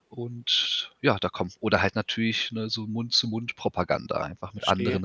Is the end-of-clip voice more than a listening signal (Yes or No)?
Yes